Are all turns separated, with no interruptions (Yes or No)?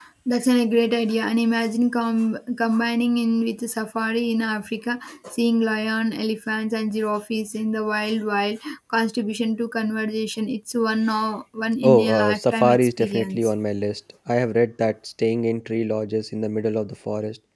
No